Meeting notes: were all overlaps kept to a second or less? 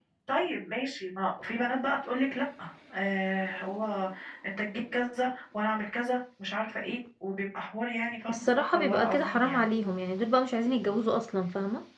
No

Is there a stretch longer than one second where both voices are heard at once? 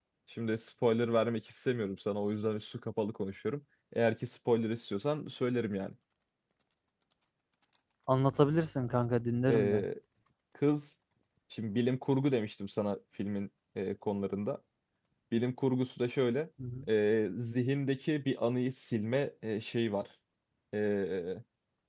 No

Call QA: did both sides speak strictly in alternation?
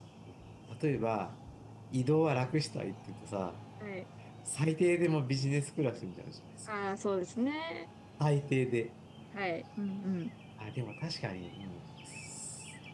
Yes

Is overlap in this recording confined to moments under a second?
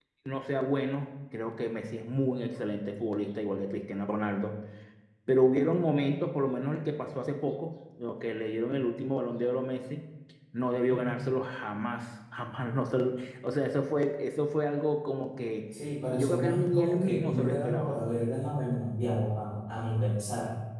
No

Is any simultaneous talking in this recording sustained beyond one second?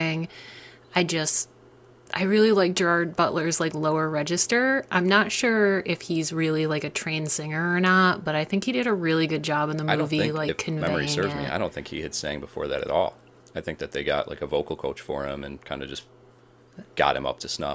Yes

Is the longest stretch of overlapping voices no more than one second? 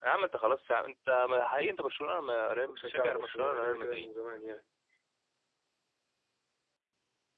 No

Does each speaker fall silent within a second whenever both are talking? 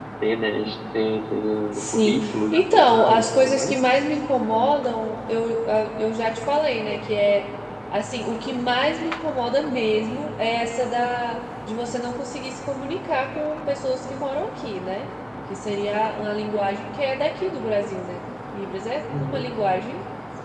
No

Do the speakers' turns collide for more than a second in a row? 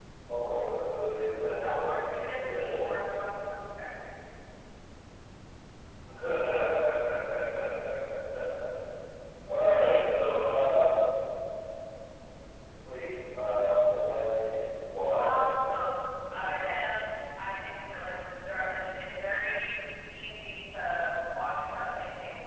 Yes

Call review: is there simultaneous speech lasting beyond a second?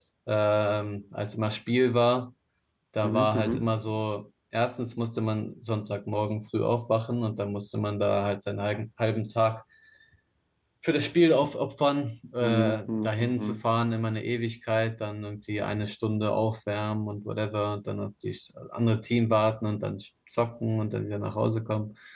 Yes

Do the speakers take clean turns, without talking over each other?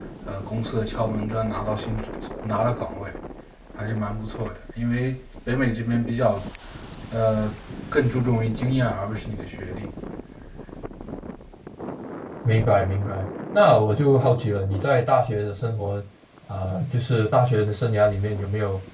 Yes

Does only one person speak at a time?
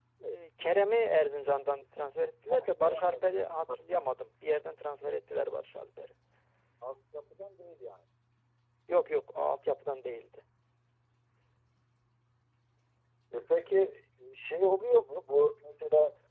No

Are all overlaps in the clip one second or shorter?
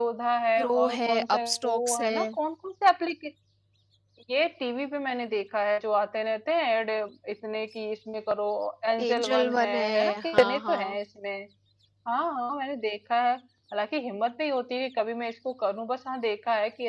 No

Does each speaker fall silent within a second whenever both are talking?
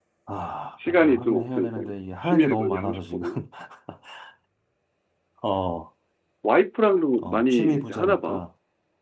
No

